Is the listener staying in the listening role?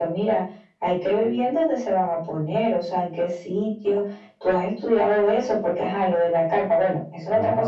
No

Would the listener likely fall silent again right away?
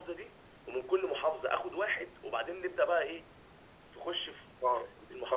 No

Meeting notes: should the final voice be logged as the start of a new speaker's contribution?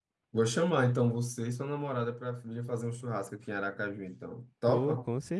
Yes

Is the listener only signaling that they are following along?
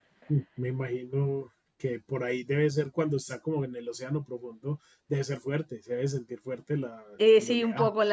No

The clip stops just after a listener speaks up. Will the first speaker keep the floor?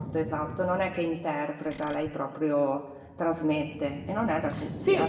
No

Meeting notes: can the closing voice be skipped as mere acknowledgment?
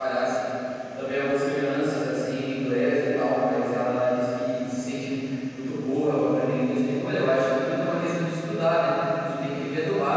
Yes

